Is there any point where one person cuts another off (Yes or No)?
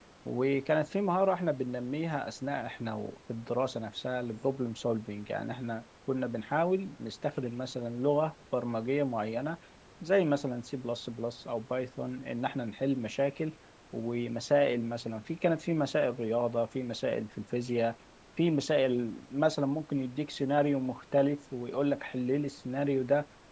No